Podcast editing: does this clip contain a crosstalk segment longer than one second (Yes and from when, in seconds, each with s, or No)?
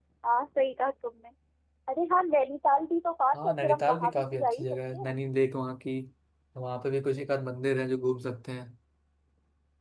Yes, from 3.3 s